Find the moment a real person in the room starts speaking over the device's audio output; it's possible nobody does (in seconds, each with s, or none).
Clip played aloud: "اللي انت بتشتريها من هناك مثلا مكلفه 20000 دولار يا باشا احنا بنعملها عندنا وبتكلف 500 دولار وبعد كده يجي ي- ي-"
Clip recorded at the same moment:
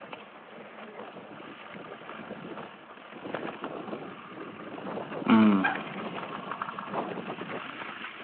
5.3 s